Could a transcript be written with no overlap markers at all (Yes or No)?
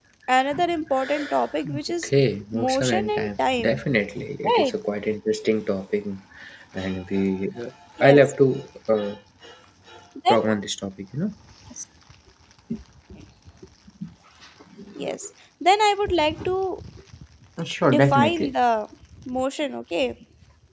No